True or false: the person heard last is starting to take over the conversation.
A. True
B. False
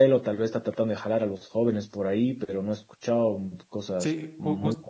A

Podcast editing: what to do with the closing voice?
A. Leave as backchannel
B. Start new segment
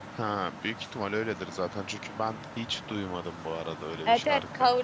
B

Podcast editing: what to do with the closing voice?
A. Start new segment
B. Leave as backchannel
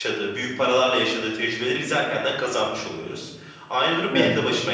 B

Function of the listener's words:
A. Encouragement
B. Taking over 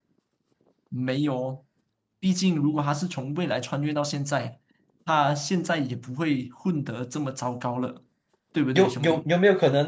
B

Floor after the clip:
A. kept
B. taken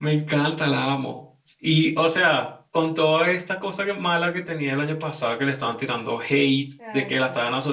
A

